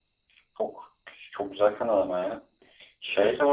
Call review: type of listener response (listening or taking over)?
taking over